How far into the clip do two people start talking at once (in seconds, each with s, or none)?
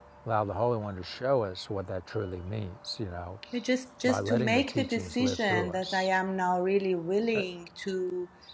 4.0 s